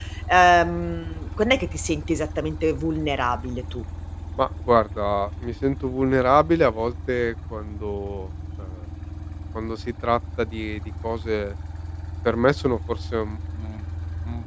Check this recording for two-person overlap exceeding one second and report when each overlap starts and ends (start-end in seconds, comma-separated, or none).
none